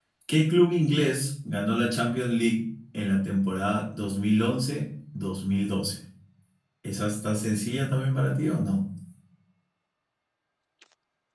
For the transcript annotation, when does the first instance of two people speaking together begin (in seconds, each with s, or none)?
none